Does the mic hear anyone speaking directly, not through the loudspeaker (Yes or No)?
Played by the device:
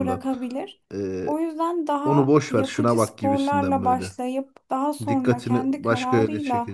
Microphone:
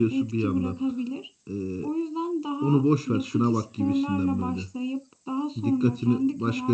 No